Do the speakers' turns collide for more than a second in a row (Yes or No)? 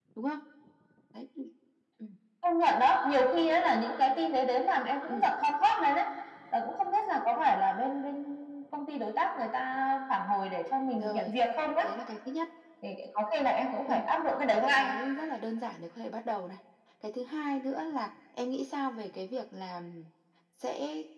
No